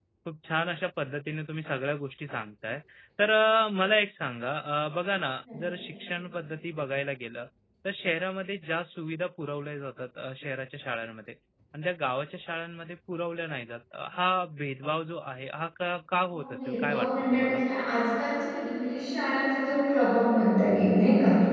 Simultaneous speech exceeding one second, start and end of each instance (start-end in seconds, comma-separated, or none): 16.3-17.6